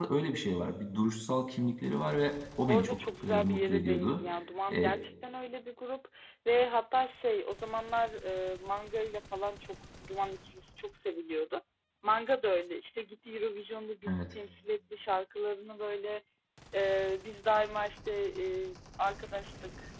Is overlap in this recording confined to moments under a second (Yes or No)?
No